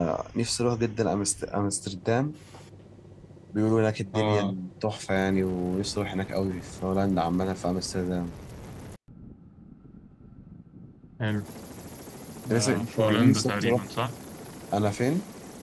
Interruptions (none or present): present